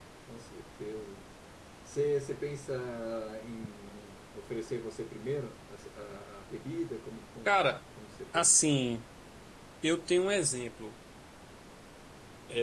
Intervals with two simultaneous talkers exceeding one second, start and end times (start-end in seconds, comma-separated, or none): none